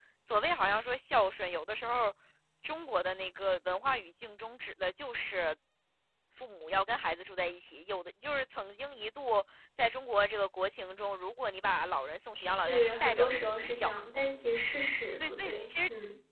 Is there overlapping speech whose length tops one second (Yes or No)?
Yes